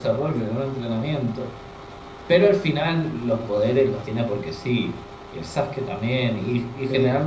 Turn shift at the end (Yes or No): No